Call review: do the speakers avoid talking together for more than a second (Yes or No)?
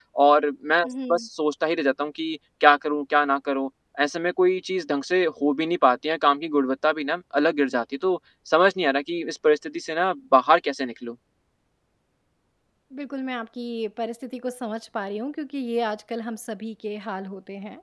Yes